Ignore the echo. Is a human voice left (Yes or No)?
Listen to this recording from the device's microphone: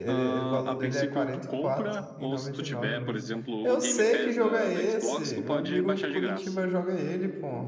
Yes